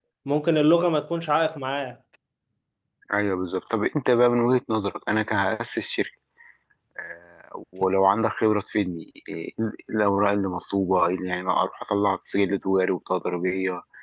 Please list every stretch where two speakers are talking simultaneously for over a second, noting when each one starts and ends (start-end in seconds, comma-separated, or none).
none